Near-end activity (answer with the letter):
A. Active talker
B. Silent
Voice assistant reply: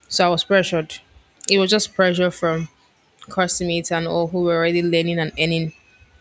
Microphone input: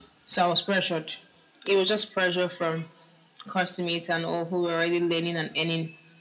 B